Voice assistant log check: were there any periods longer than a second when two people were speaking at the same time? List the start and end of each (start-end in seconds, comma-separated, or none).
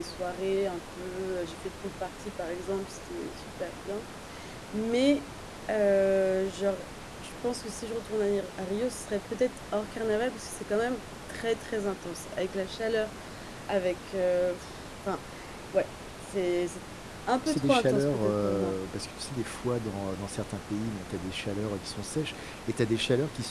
17.5-18.8